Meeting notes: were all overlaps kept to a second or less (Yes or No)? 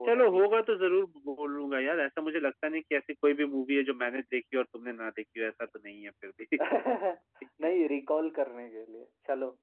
Yes